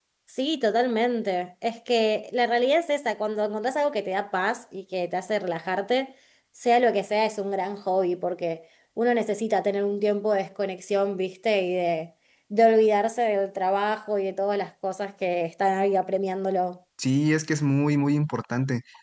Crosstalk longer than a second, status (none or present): none